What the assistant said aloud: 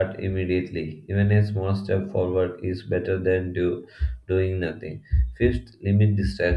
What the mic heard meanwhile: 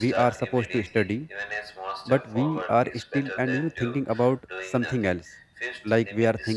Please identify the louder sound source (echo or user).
user